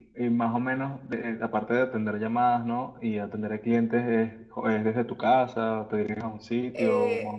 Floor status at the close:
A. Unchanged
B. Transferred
B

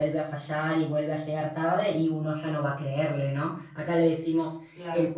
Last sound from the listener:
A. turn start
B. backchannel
B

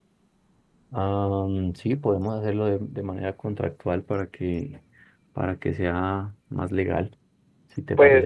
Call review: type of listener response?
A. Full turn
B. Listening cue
A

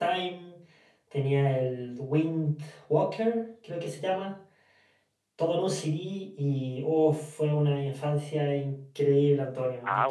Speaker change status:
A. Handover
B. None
A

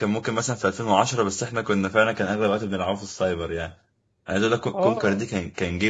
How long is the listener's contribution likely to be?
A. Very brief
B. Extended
A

